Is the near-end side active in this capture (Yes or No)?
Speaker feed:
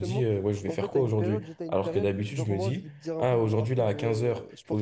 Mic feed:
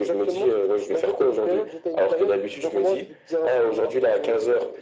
No